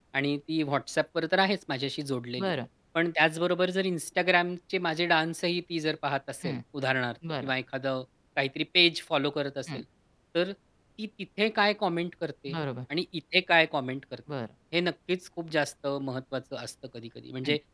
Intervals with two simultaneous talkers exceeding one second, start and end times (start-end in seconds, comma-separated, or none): none